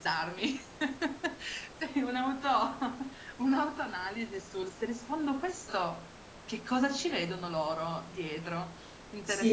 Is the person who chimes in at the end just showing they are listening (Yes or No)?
No